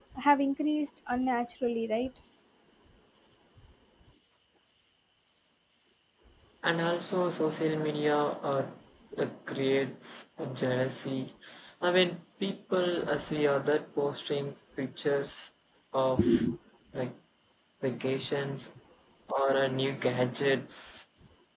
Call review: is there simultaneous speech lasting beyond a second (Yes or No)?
No